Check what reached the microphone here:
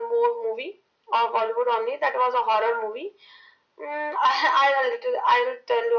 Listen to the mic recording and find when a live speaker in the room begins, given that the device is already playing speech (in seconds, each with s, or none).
none